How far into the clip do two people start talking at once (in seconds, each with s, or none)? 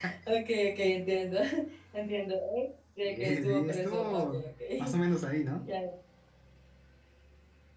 3.0 s